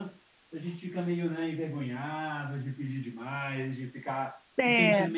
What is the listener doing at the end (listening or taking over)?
listening